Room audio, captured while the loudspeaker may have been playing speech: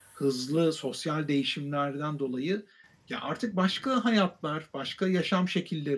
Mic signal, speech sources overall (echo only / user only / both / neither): echo only